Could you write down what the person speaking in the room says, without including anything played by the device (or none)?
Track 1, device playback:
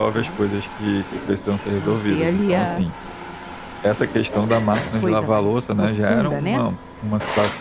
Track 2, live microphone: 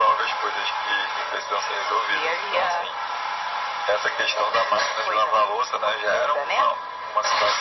none